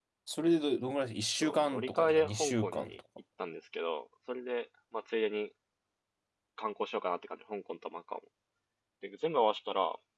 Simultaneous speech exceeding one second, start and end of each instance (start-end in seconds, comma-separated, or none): 1.4-3.0